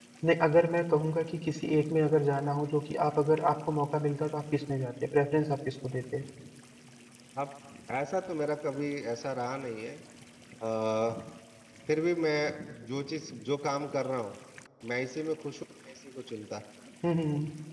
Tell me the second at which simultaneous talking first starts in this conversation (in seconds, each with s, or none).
none